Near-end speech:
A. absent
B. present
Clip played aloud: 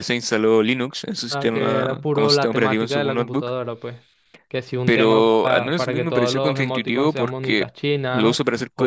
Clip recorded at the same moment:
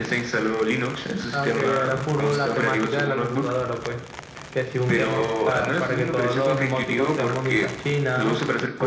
A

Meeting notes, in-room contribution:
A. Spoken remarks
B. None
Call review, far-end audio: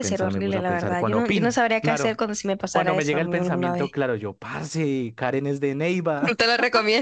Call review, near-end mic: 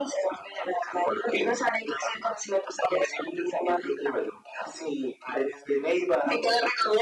B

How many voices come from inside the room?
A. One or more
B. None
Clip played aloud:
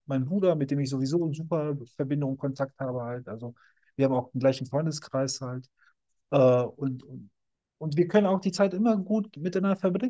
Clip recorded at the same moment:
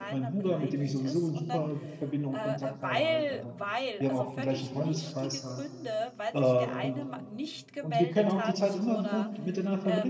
A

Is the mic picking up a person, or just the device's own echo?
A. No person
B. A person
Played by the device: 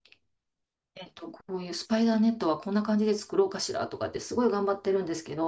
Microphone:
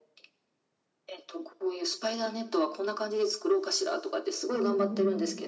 B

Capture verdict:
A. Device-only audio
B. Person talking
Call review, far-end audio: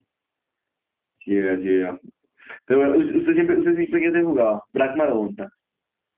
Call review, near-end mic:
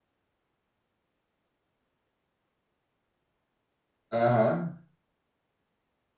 B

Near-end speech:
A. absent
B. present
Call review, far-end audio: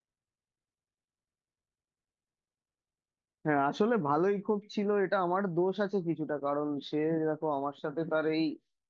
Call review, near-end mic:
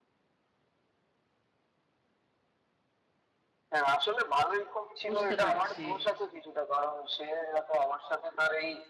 B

